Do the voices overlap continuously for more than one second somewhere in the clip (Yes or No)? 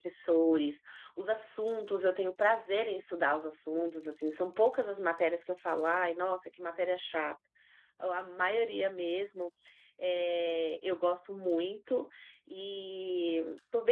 No